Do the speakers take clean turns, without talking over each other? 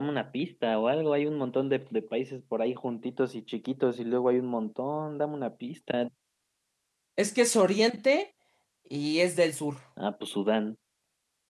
Yes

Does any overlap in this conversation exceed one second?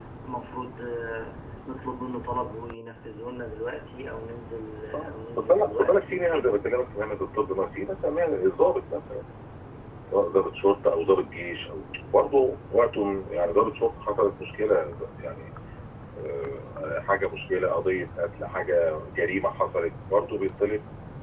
Yes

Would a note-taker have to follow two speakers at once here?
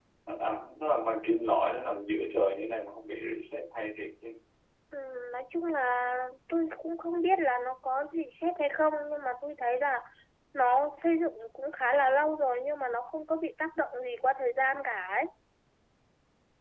No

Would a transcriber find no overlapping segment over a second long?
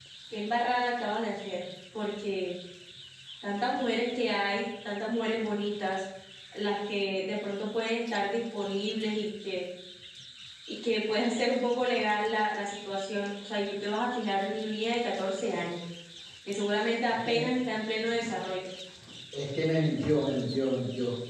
Yes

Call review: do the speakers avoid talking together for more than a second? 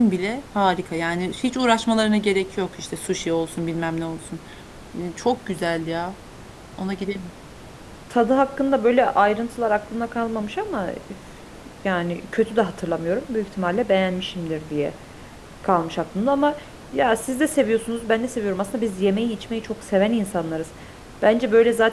Yes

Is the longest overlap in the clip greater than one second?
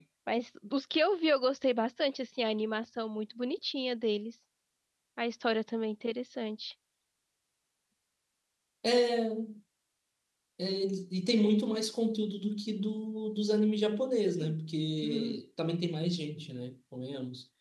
No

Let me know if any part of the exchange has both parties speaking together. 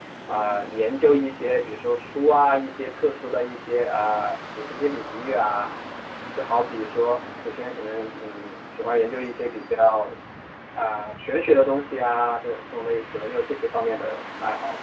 No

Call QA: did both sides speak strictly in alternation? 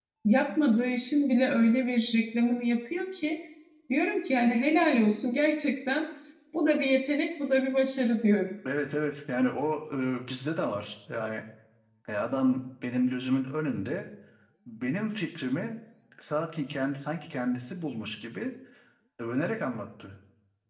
Yes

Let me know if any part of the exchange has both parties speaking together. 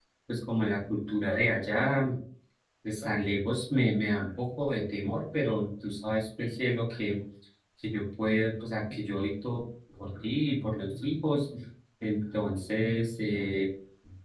No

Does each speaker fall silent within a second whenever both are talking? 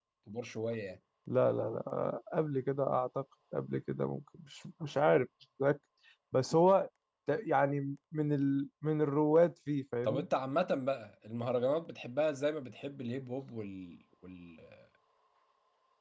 Yes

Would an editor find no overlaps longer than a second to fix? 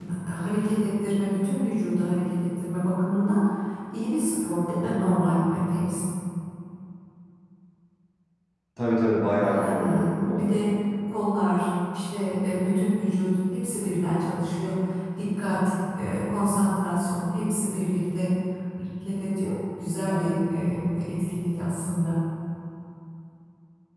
No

